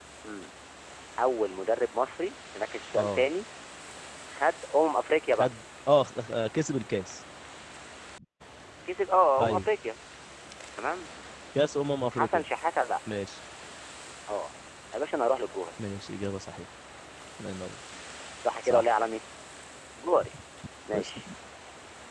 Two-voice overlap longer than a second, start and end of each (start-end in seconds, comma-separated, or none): none